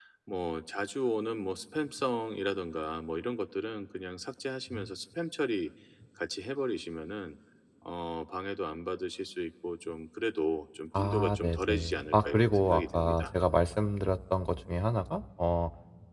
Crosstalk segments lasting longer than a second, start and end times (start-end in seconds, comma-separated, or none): 11.0-13.3